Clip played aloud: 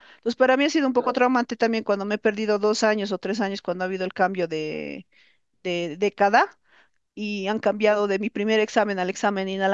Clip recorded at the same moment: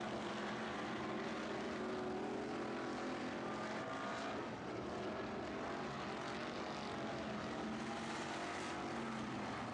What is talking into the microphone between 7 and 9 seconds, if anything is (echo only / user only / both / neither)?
neither